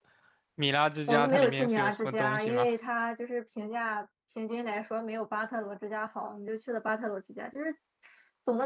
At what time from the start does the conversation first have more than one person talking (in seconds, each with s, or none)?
1.1 s